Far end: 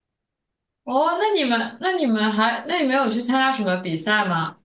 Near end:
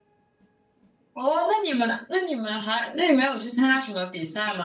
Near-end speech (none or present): none